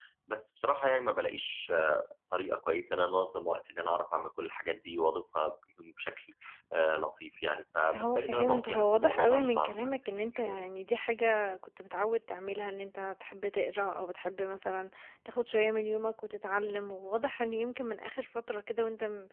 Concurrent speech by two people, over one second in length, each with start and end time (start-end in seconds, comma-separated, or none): 7.9-10.6